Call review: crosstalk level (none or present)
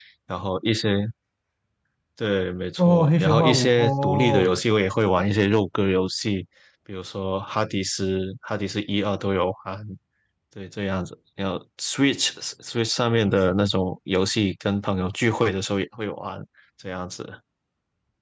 present